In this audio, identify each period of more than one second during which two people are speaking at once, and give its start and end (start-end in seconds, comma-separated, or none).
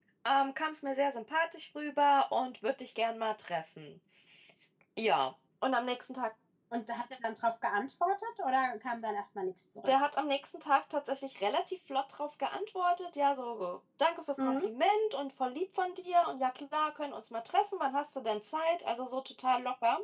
none